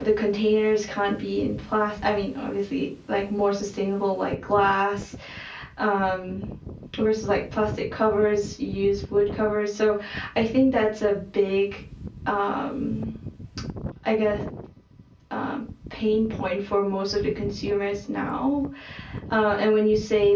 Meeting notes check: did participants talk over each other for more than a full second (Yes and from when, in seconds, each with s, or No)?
No